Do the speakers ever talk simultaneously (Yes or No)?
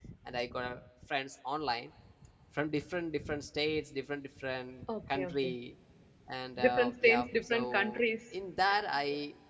Yes